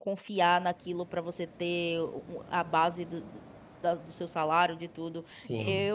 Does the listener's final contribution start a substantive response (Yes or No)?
Yes